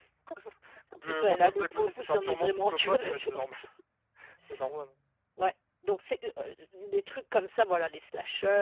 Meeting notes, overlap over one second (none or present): present